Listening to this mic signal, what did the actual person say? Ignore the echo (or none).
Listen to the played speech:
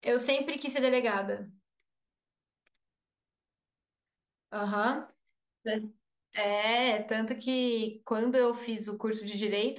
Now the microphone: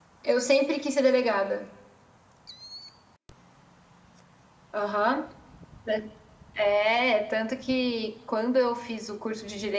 none